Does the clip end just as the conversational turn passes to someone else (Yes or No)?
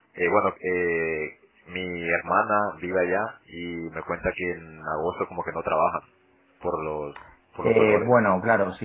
Yes